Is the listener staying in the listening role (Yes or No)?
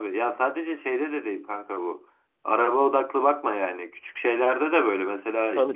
Yes